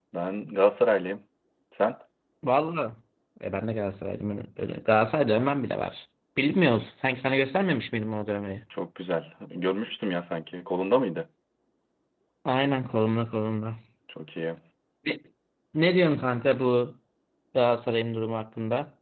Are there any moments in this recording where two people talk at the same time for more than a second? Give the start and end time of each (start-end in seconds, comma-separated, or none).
none